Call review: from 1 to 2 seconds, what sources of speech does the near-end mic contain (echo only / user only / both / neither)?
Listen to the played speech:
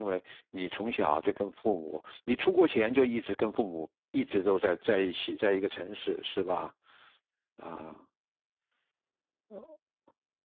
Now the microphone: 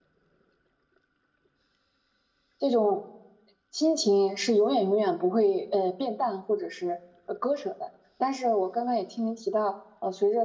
neither